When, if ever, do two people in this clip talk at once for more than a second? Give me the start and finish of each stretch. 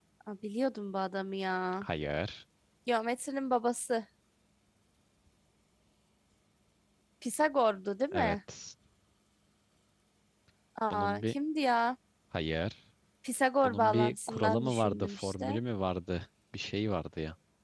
13.6-15.6

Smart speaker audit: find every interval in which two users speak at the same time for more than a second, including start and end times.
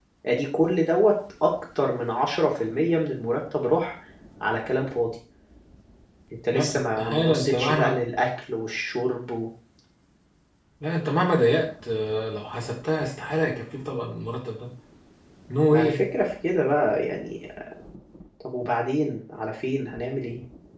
6.5-8.0

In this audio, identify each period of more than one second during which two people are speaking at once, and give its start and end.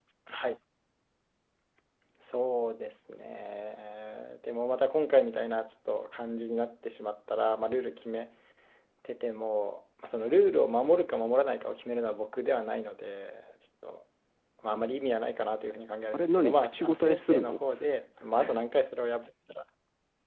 16.1-17.6

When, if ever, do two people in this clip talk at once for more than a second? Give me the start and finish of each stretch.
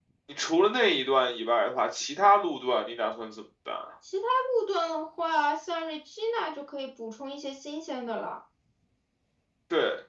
none

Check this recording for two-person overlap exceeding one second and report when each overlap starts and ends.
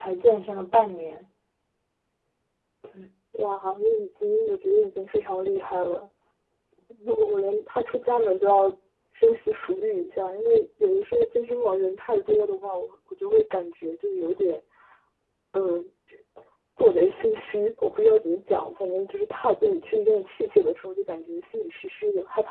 none

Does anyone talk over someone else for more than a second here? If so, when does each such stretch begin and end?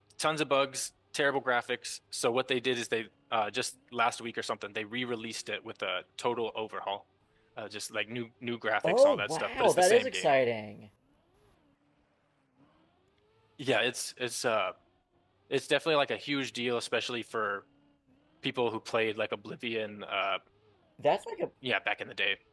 8.8-10.3

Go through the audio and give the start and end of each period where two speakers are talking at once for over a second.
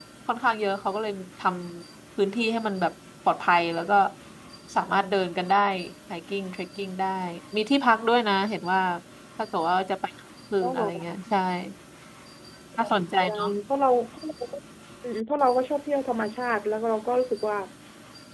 none

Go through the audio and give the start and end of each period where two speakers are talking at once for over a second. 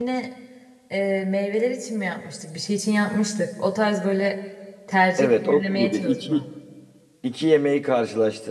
5.2-6.4

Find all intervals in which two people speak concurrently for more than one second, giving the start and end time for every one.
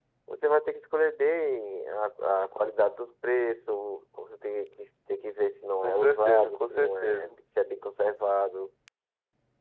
5.8-7.4

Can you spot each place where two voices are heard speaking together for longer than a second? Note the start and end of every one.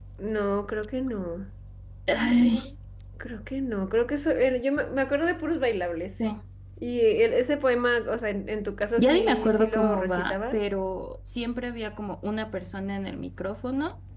9.0-10.6

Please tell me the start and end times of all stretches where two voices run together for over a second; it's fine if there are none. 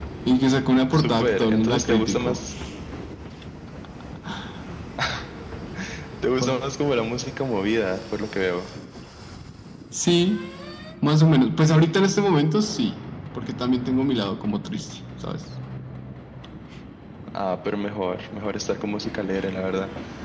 0.9-2.4

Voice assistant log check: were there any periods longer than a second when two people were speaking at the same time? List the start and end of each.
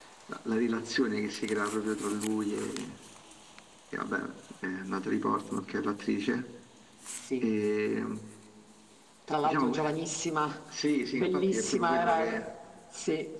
11.1-12.3

